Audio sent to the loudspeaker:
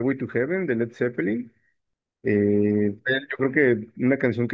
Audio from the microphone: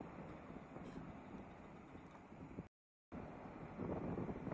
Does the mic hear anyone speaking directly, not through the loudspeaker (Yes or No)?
No